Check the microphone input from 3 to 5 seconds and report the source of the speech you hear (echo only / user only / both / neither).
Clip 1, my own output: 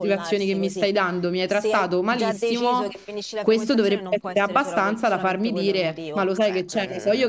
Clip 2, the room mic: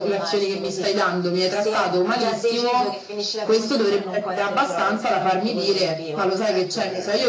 echo only